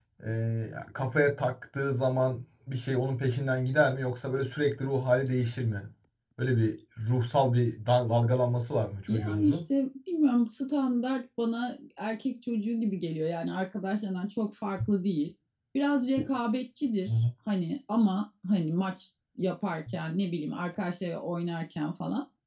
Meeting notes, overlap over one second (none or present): none